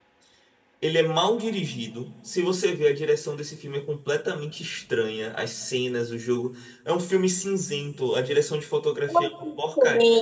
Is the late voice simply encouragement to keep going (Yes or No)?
No